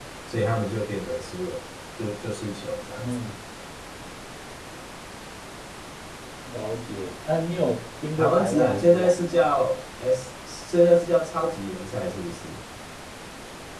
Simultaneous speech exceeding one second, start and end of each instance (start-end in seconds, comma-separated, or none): 8.2-9.4